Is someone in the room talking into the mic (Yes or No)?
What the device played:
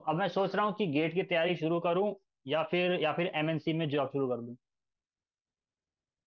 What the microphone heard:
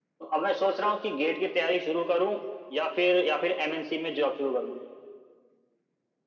No